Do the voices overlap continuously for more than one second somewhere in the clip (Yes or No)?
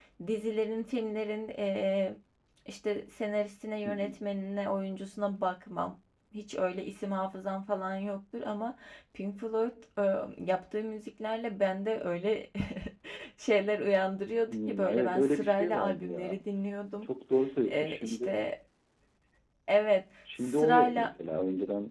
Yes